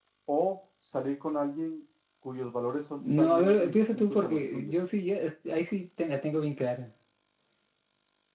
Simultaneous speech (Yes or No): Yes